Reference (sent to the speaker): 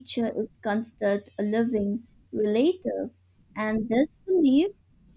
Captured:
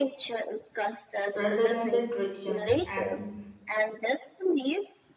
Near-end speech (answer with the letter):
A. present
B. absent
A